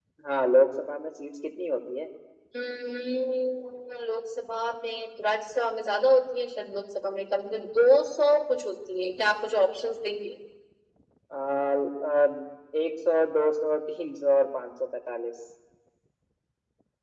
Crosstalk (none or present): none